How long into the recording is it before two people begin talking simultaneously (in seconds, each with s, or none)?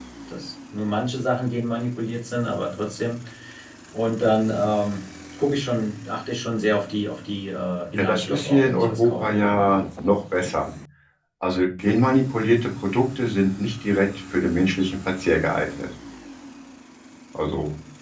7.9 s